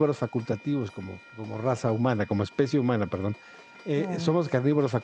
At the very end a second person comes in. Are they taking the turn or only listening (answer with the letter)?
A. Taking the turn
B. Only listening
B